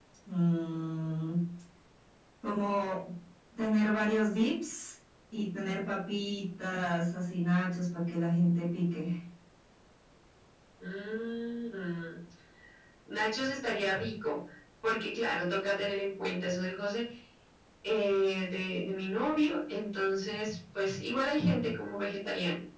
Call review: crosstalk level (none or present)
none